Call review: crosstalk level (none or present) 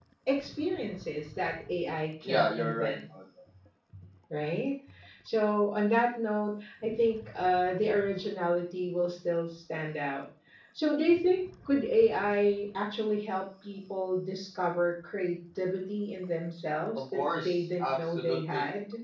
present